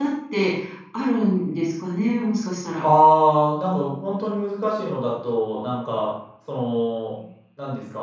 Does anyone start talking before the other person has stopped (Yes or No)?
No